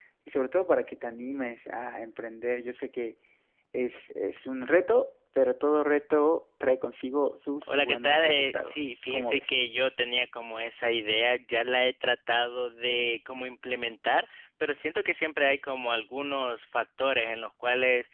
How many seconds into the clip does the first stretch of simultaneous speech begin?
7.6 s

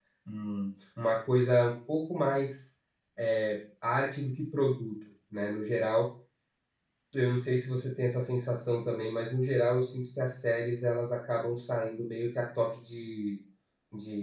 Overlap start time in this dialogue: none

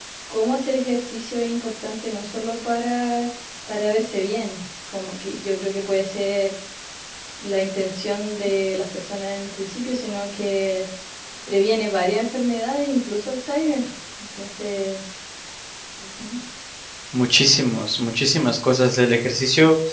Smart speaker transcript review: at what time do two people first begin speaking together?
none

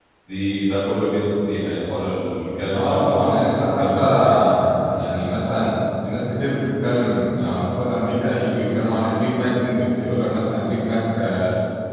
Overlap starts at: 2.7 s

